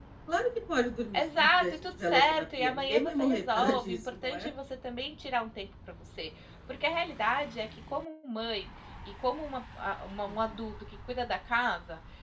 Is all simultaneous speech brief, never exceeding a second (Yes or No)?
No